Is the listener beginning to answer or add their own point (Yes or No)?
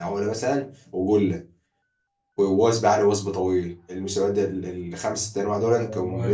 No